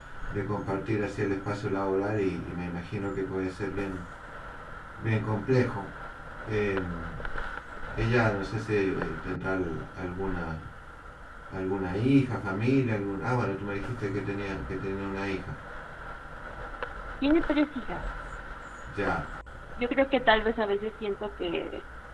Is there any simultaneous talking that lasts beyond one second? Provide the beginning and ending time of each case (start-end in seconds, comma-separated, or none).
none